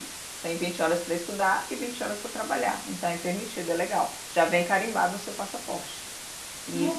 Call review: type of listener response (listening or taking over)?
taking over